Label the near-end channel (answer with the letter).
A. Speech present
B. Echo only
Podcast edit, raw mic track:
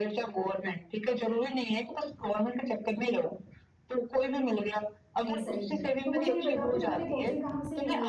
A